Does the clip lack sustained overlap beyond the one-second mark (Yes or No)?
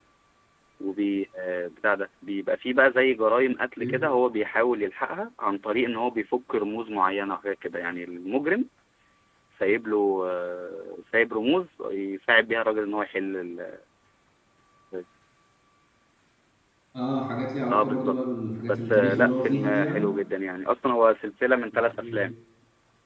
No